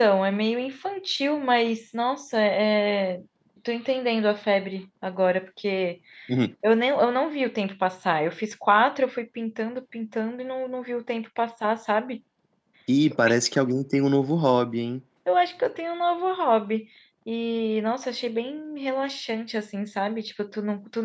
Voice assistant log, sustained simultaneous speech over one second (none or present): none